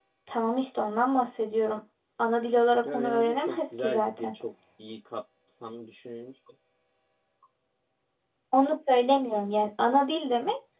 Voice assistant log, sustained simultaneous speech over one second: present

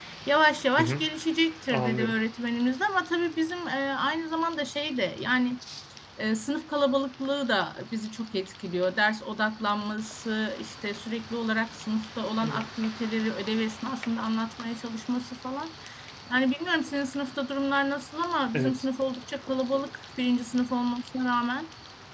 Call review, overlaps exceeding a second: none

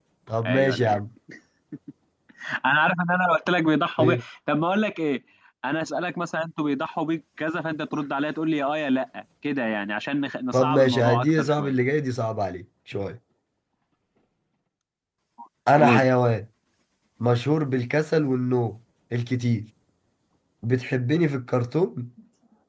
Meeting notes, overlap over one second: present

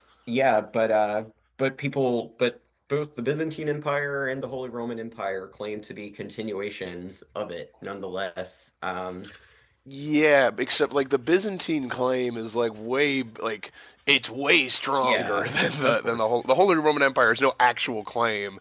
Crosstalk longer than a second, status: none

